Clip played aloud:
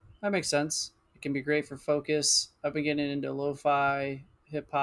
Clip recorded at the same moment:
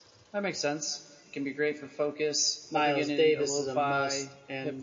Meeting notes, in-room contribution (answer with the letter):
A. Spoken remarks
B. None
A